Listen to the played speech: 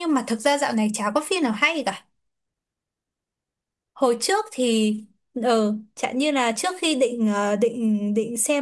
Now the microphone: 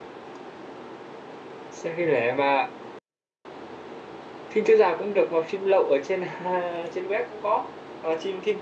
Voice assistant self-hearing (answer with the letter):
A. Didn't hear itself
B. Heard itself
A